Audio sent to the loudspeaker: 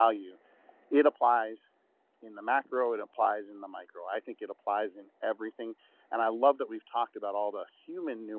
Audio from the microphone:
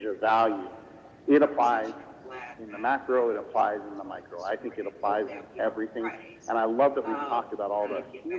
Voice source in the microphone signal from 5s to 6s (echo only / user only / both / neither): both